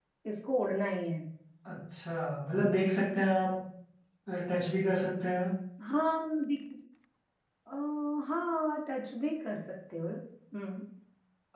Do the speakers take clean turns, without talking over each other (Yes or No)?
Yes